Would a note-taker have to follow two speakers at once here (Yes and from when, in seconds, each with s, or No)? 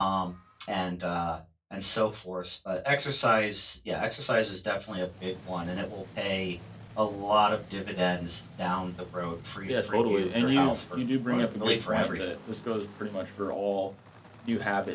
Yes, from 9.7 s